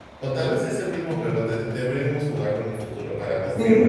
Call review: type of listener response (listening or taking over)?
taking over